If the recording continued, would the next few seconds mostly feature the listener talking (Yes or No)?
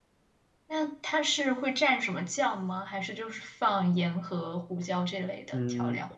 Yes